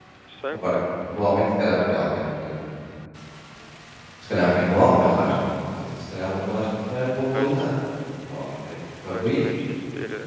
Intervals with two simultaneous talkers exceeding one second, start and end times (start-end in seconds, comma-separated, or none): none